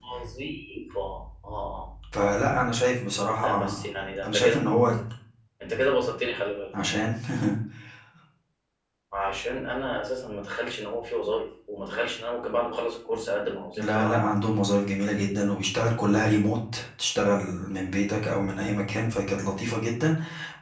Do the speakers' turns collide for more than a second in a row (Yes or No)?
No